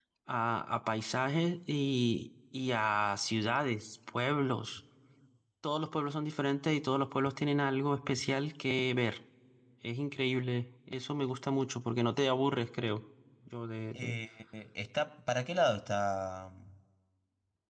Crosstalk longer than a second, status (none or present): none